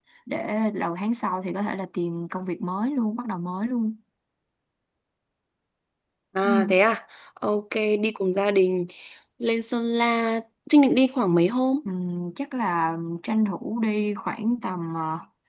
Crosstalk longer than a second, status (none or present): none